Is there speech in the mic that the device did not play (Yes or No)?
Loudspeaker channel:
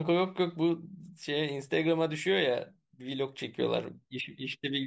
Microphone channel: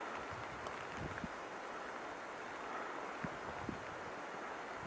No